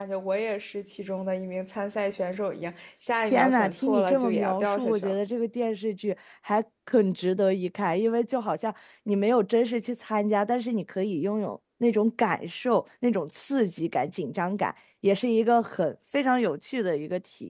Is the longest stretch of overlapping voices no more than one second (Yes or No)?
No